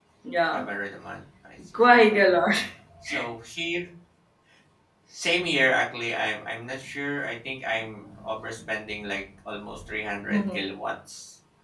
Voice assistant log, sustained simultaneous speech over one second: none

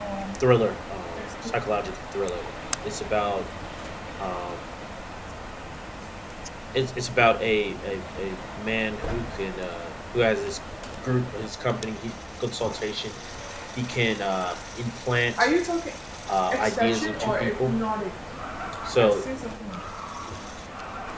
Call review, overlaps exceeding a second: present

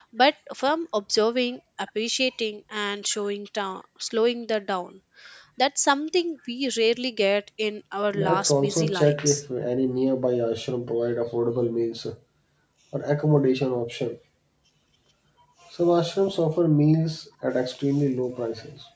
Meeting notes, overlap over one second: present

